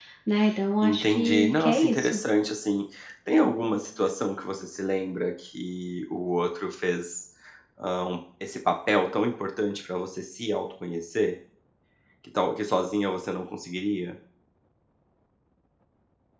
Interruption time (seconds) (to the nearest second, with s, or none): 1 s